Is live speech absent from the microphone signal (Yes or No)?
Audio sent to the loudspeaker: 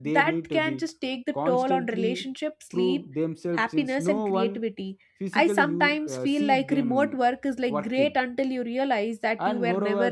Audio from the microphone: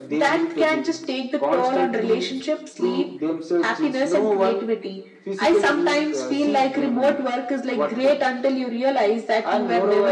Yes